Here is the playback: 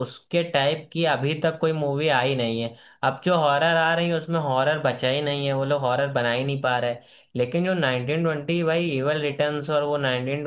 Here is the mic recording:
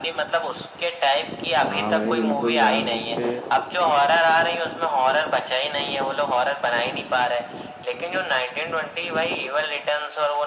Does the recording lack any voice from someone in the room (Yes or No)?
No